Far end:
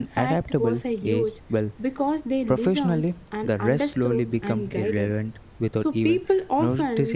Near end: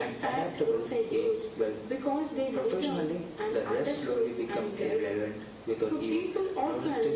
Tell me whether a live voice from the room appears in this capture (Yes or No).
No